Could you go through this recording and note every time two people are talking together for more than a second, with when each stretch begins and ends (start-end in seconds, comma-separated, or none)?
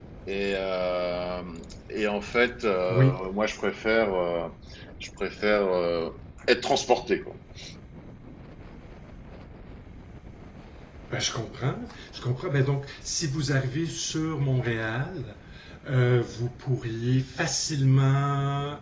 none